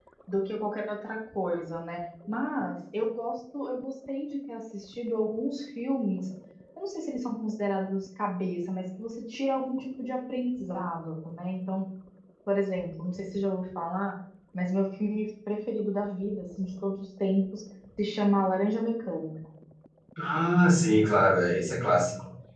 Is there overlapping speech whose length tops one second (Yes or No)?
No